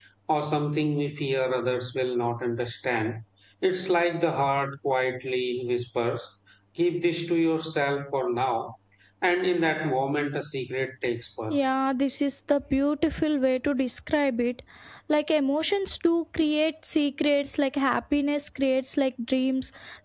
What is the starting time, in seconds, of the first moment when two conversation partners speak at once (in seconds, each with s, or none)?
none